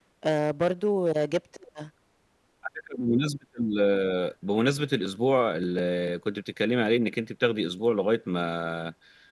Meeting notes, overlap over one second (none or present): none